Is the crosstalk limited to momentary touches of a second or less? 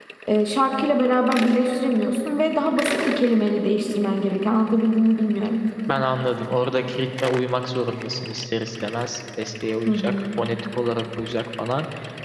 Yes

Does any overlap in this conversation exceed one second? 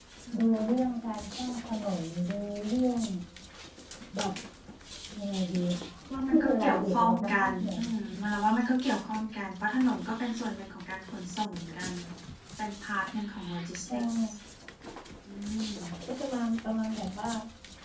Yes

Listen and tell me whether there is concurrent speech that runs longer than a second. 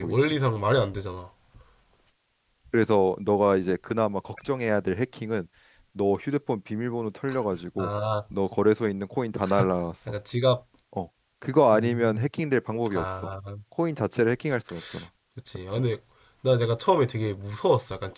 No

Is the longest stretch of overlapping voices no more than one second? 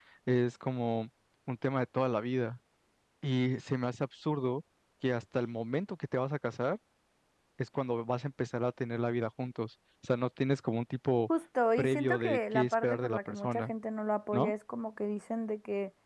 No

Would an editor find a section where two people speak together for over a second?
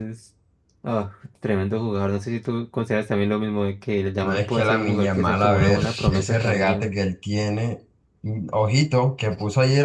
Yes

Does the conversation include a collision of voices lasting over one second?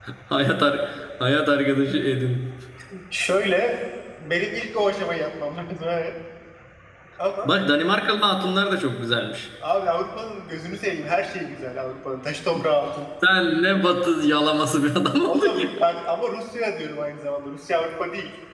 No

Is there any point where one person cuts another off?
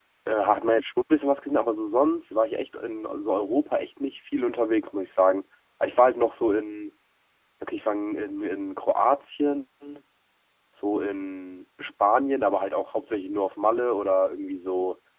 No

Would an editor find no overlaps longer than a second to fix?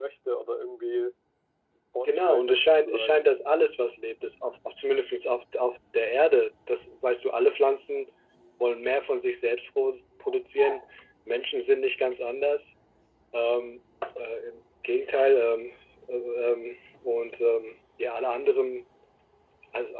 No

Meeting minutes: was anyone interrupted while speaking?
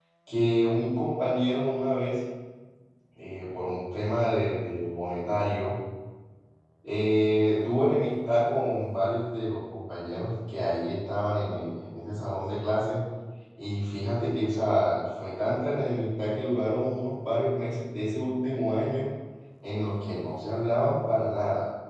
No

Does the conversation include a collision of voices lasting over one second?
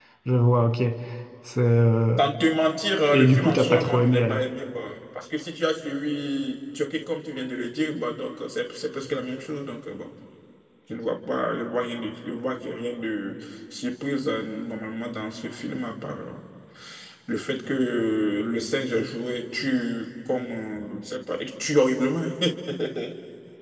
Yes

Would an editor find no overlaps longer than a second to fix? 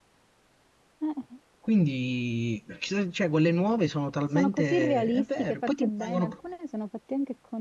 No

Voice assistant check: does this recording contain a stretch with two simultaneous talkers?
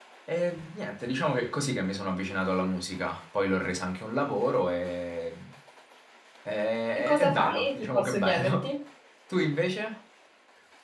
Yes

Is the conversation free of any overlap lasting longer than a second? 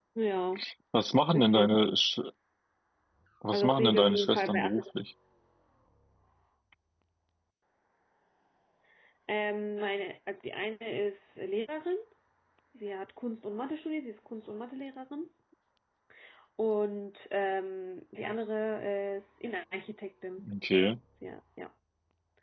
No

